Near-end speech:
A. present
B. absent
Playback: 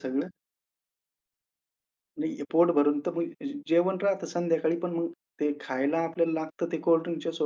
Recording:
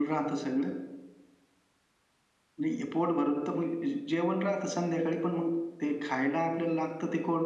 B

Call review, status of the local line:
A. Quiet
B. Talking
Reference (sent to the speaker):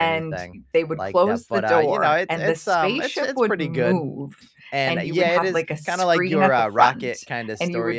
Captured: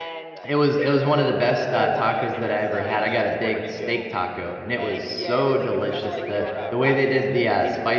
B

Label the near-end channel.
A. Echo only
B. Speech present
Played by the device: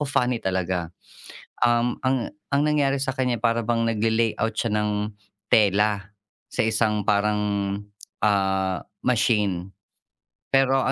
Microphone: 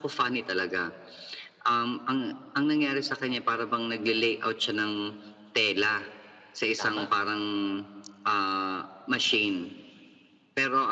B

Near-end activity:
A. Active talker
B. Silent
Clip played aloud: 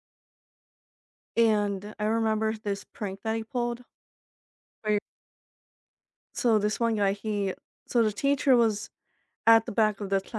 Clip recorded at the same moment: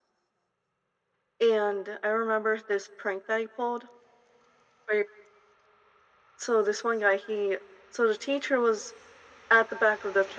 B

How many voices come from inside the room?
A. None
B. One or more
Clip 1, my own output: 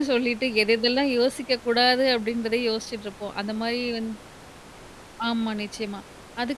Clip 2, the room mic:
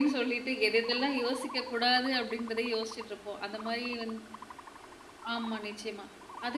A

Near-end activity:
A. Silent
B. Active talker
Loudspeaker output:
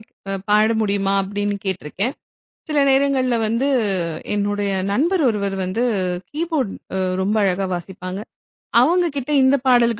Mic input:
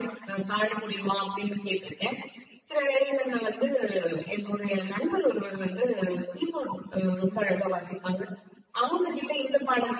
A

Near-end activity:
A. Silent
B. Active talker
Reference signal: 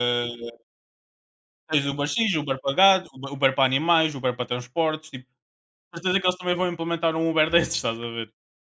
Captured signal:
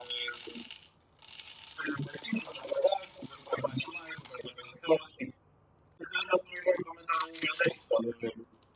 A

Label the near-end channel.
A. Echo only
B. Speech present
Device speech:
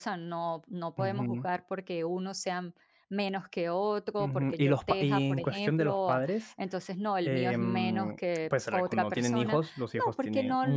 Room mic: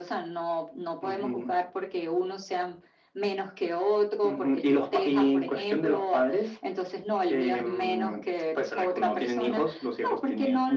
A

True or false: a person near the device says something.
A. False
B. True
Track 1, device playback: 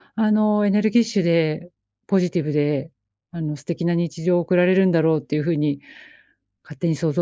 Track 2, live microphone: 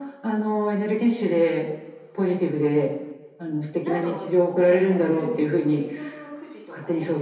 B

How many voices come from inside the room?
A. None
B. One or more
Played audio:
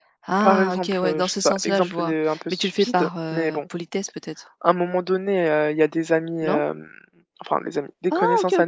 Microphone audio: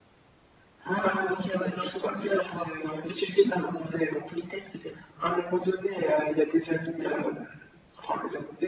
A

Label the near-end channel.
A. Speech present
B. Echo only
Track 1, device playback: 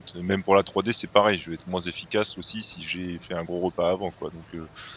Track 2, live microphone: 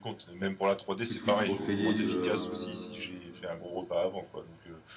A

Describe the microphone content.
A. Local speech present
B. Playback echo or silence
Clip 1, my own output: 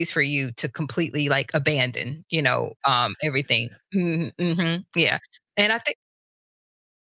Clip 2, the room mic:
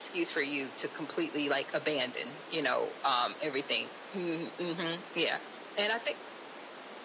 B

